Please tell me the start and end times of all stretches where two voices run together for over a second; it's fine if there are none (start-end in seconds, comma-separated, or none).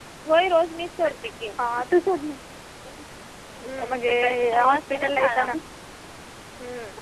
4.1-5.5